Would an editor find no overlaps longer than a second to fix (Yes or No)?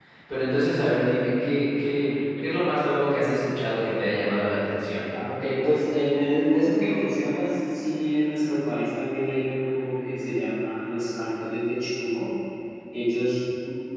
Yes